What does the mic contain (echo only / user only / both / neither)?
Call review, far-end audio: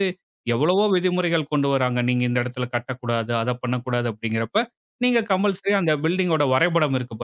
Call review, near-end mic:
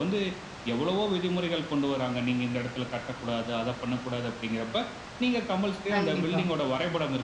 both